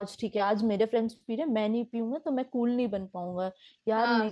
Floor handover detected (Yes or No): No